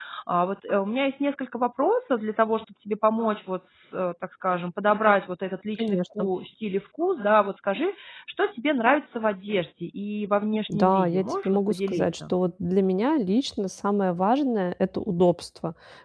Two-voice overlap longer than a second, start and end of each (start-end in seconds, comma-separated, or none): 10.7-12.3